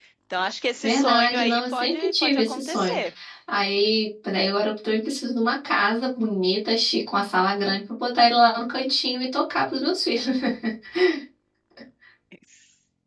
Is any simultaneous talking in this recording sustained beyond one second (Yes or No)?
Yes